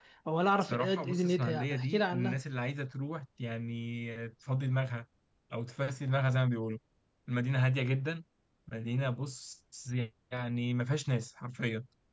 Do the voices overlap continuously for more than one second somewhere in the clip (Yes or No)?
Yes